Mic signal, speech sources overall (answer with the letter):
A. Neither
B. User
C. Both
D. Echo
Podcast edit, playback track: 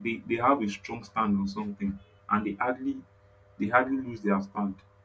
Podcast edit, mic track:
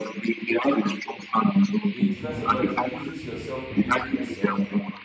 C